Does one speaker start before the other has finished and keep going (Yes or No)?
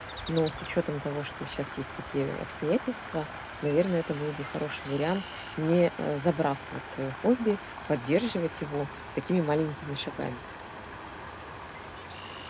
No